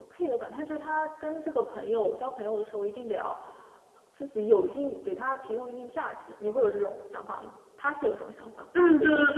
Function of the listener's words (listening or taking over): taking over